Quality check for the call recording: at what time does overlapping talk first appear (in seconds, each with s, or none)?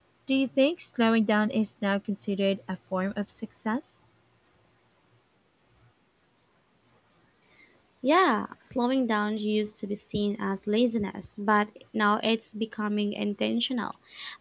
none